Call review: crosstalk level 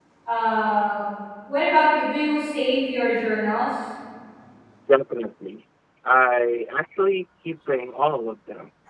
none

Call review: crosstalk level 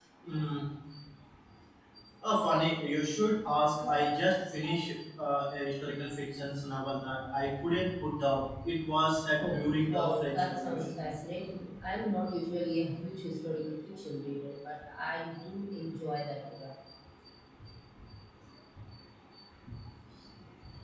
present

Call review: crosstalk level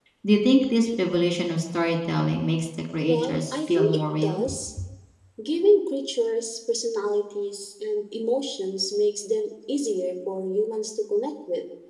present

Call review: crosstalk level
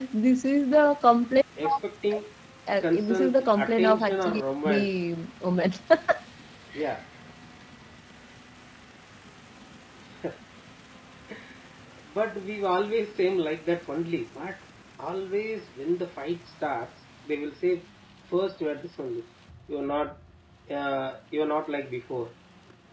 present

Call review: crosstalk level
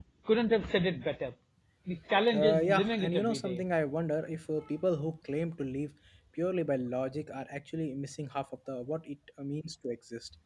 present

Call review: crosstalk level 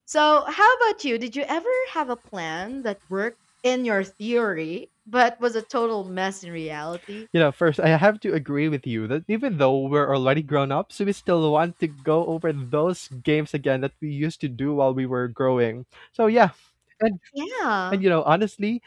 none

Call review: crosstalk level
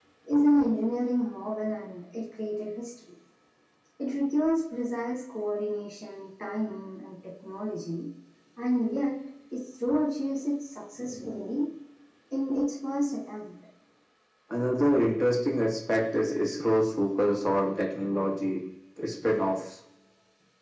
none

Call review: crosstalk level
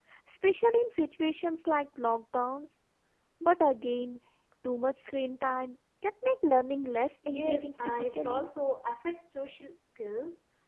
present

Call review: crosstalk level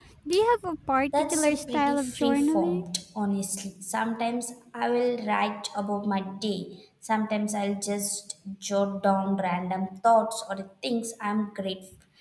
present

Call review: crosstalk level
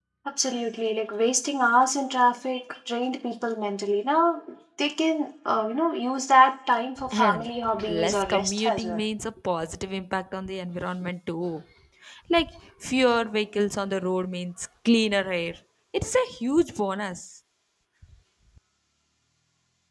present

